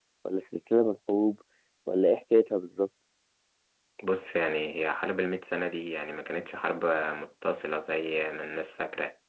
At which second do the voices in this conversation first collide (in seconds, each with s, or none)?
none